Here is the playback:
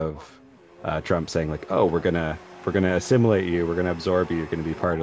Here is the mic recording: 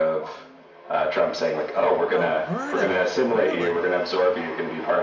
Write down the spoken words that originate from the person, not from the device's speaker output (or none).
Alberta, really?